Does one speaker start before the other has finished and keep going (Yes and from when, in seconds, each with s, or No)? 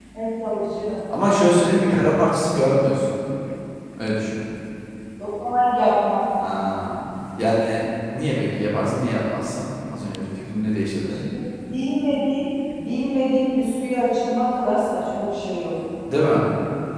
No